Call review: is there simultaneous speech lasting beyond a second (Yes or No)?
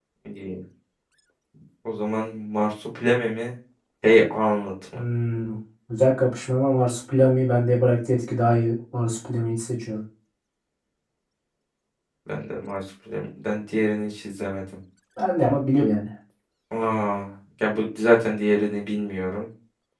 No